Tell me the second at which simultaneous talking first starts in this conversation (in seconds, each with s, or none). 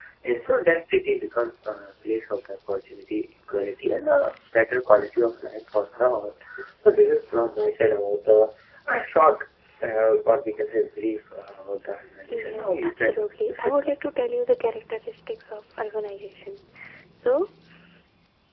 12.3 s